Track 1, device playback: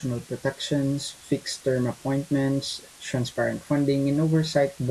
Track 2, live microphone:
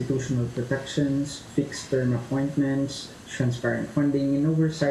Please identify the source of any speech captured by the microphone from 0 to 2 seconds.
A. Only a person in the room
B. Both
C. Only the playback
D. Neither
C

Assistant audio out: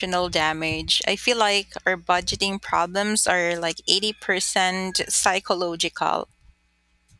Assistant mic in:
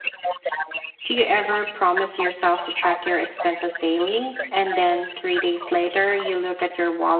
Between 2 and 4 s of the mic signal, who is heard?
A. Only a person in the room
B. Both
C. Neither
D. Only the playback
B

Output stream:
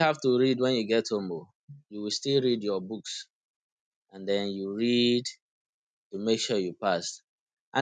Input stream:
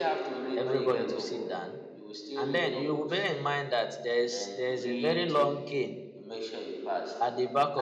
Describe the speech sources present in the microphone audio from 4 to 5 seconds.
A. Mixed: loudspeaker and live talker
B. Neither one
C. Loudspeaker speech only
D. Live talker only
A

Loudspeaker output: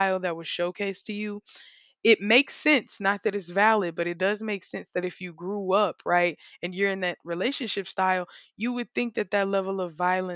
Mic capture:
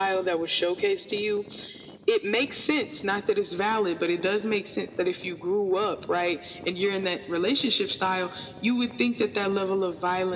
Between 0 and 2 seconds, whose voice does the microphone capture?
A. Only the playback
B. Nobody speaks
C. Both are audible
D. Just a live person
A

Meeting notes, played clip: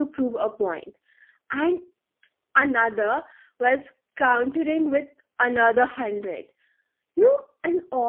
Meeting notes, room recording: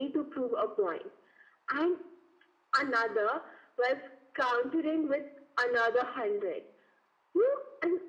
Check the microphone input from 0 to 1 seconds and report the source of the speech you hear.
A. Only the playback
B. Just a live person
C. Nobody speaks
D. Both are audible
A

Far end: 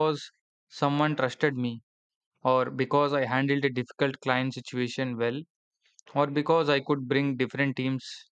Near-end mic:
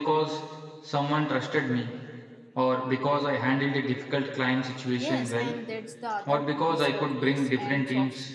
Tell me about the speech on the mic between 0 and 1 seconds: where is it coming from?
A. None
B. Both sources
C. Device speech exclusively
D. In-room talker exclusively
C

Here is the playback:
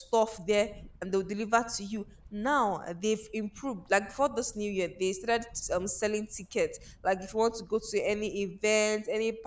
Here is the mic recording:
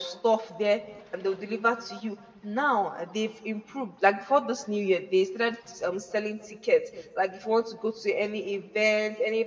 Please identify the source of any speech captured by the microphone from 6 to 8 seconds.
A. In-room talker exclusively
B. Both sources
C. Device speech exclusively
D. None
C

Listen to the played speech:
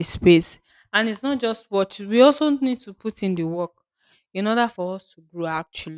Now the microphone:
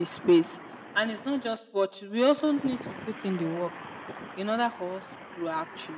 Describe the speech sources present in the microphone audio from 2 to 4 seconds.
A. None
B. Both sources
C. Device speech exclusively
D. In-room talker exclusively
C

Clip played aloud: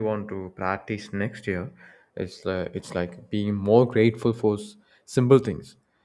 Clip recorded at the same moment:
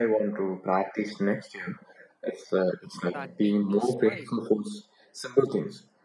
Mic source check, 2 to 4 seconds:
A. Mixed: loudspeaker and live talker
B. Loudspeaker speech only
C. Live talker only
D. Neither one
A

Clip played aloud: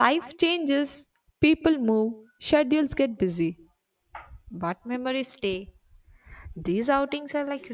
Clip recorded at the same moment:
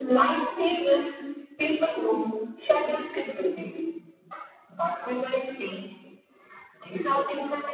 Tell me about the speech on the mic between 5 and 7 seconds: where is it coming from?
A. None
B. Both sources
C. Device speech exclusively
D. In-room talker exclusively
C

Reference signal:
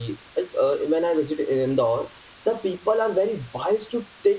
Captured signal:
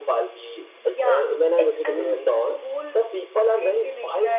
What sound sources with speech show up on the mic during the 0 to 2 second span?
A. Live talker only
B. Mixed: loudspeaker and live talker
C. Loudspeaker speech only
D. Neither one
B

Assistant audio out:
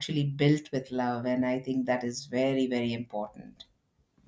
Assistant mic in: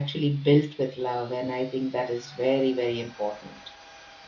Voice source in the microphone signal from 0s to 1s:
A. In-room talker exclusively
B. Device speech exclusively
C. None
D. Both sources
B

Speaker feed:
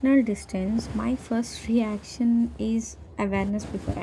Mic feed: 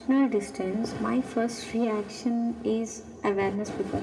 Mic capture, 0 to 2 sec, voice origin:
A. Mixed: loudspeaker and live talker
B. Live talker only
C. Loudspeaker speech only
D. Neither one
C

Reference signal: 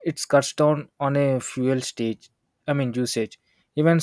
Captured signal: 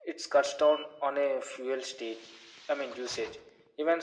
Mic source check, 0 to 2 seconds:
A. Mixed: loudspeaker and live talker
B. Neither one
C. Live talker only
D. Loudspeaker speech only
D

